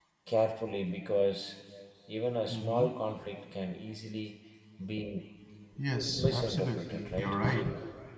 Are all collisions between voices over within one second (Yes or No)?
No